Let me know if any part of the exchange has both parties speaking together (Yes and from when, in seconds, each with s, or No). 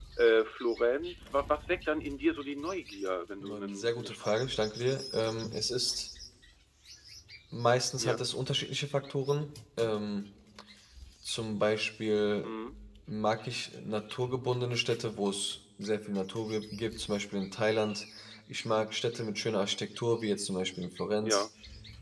Yes, from 3.4 s